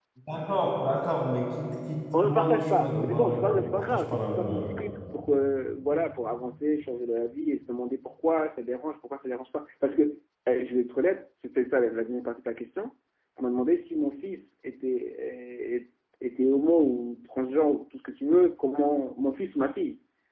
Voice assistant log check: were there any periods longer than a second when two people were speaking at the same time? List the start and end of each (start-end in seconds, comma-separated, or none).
2.2-4.7